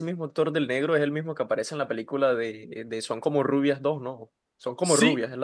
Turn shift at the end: Yes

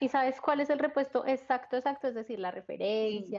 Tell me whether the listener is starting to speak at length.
Yes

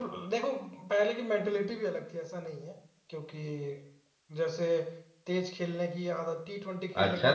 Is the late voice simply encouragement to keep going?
No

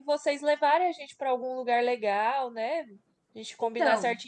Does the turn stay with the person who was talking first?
Yes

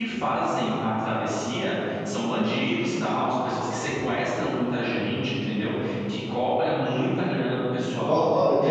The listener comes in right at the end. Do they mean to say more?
Yes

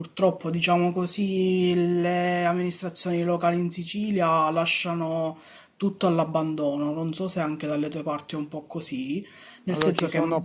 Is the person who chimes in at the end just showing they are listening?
No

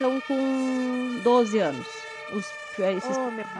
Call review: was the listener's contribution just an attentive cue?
No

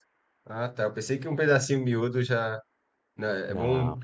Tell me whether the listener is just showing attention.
Yes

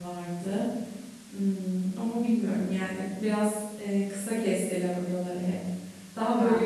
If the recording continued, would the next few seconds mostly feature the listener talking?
No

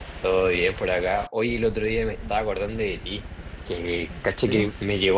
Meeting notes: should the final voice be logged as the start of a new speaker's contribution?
No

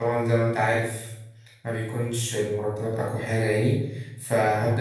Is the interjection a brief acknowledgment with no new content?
Yes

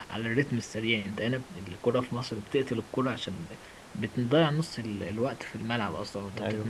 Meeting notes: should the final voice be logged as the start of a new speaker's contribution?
Yes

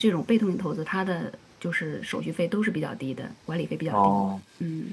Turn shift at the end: Yes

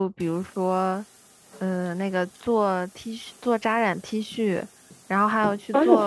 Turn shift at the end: No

